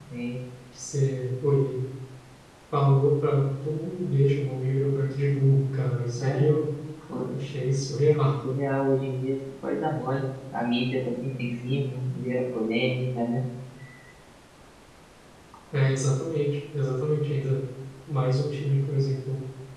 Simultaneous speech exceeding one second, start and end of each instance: none

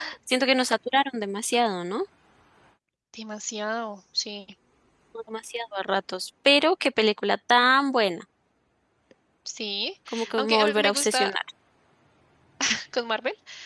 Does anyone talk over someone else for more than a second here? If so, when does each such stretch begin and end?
10.1-11.3

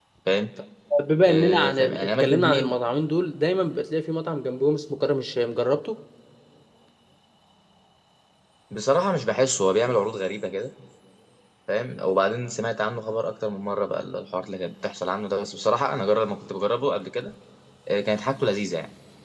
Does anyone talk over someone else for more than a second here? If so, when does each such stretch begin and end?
1.3-2.6

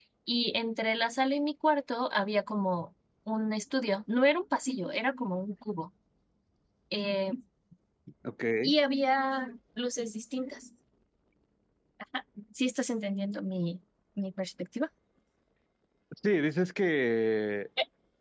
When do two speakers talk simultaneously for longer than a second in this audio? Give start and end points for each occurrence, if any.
none

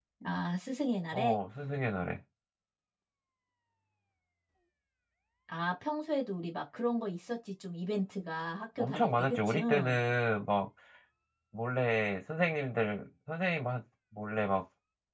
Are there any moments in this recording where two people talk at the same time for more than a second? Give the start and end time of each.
8.8-10.0

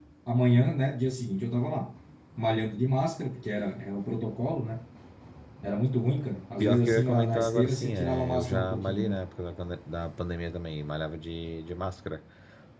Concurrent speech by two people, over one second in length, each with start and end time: 6.6-9.2

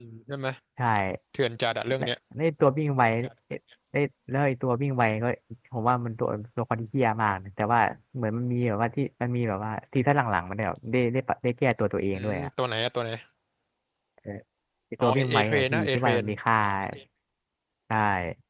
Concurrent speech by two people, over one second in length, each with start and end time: 15.0-16.2

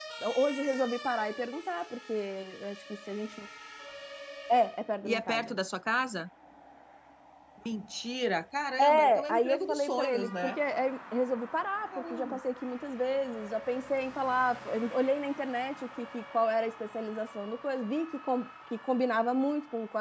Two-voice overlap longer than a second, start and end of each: 8.8-10.6

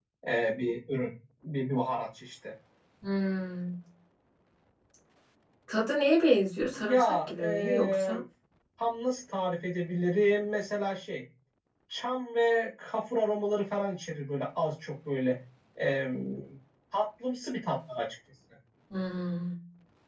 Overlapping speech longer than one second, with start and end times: 6.7-8.1

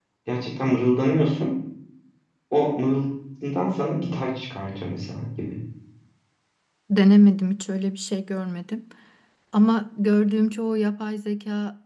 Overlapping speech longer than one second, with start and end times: none

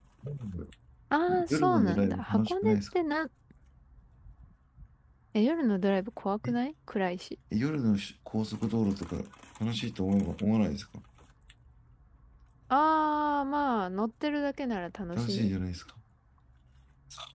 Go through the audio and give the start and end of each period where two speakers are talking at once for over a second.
1.5-2.8

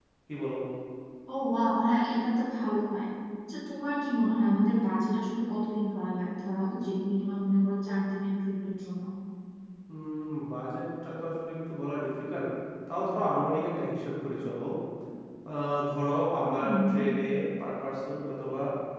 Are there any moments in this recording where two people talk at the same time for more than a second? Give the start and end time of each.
none

